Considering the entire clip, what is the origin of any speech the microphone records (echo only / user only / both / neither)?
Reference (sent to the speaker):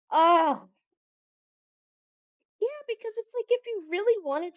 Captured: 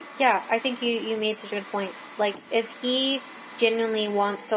user only